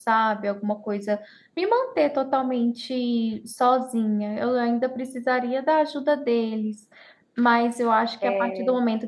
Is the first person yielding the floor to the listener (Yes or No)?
No